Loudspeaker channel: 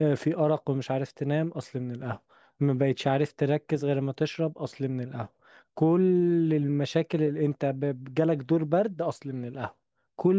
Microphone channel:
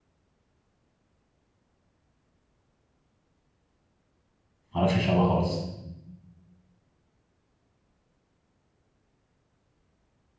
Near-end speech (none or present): present